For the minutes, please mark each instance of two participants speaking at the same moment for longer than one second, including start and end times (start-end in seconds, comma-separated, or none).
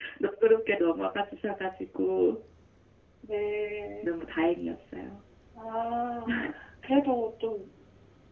none